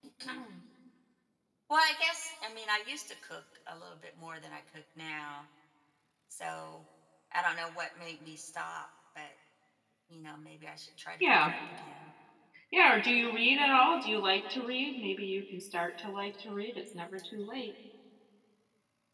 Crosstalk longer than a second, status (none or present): none